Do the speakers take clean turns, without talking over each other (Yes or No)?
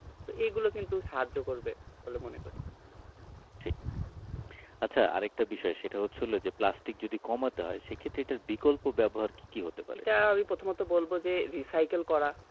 Yes